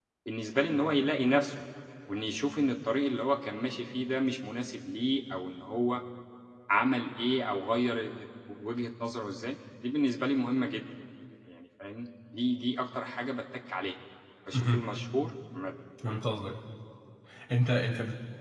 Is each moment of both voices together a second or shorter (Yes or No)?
Yes